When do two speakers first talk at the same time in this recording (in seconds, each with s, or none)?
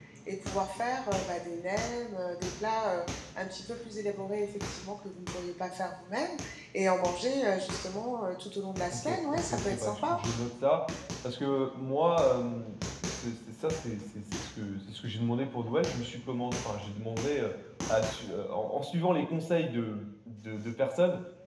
8.9 s